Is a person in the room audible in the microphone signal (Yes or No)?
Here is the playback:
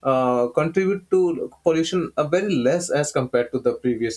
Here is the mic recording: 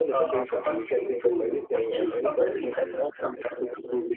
Yes